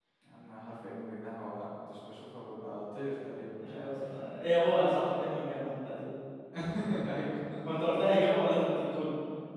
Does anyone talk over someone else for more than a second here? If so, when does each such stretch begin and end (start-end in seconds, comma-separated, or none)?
none